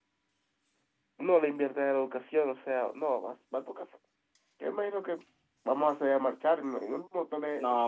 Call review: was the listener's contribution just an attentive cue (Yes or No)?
No